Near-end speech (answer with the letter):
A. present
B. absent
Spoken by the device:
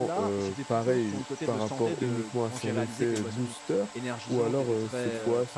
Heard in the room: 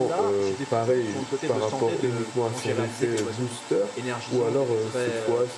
B